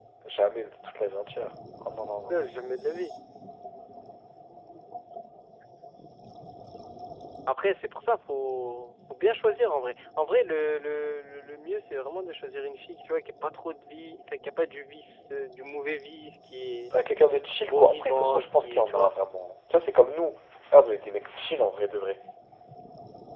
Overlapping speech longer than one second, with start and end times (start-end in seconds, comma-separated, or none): 17.7-19.1